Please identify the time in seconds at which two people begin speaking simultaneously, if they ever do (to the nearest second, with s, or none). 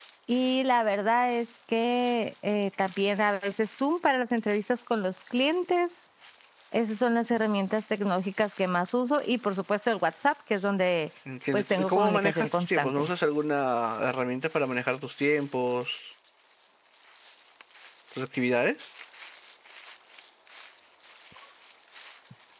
12 s